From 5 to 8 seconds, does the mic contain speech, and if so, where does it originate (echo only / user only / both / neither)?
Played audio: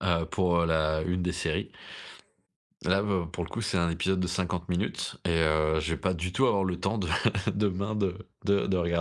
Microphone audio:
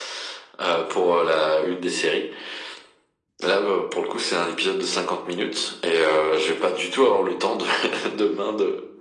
echo only